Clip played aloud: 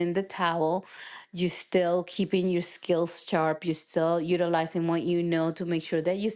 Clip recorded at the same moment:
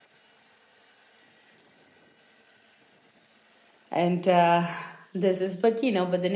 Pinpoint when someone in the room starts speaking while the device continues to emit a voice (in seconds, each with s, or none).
3.9 s